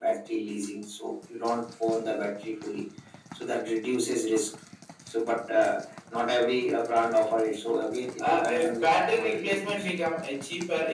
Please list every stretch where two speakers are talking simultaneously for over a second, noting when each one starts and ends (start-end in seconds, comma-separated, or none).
8.2-9.9